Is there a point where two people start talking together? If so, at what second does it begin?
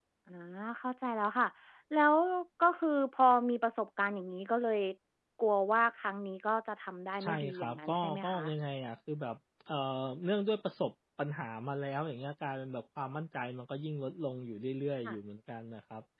7 s

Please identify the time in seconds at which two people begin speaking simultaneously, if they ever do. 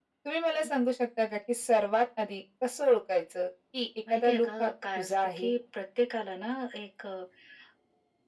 4 s

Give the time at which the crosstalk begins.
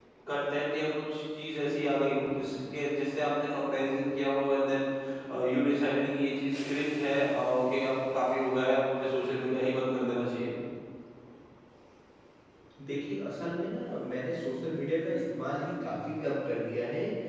none

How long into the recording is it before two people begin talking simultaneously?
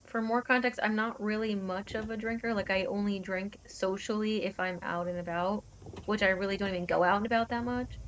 none

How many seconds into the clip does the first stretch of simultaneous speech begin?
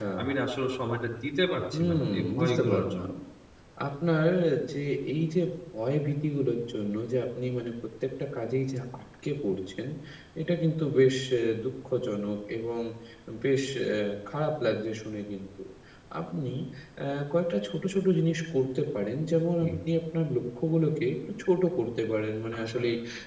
2 s

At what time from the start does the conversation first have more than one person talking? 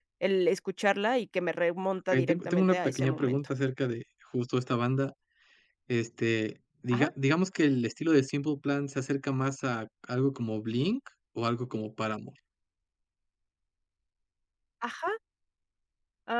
2 s

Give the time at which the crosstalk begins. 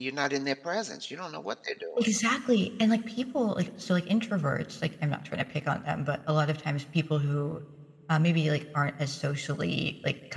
none

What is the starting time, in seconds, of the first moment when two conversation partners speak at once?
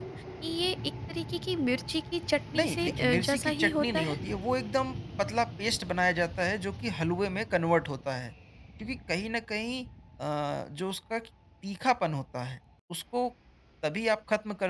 3 s

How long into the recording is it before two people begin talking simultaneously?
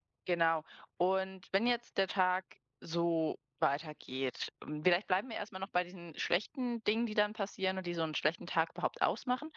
none

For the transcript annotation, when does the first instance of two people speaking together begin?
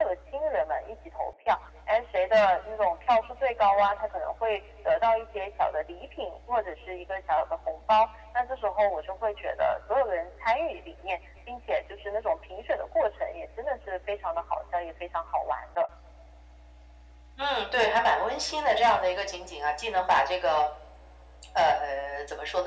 none

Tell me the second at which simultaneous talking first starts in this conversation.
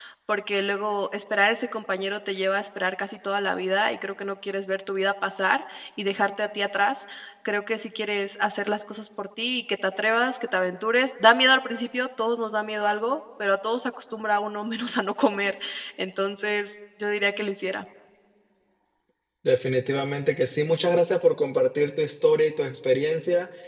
none

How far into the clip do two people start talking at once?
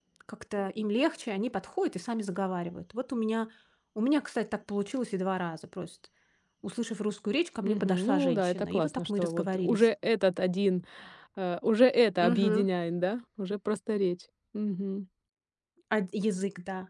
8 s

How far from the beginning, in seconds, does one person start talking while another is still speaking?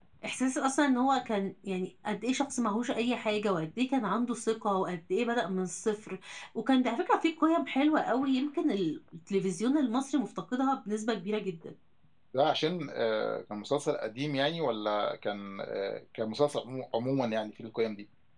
none

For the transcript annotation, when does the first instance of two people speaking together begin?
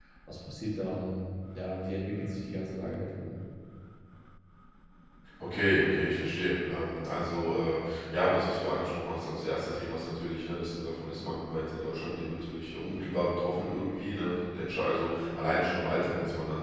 none

